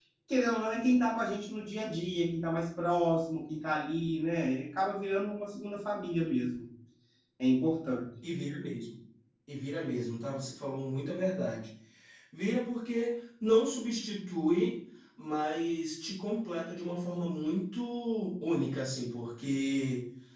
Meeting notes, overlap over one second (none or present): none